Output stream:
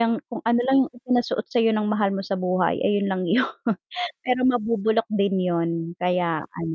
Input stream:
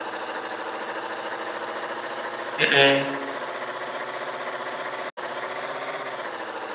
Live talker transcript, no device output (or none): Mhm.